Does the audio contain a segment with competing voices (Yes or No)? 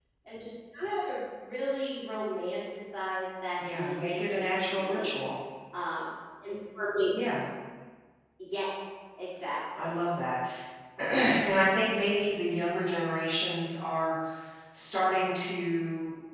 Yes